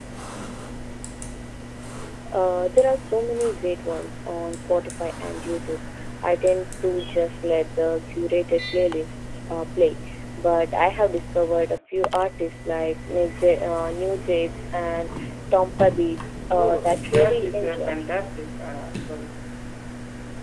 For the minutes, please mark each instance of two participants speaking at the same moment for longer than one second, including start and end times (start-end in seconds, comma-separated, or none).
16.5-18.0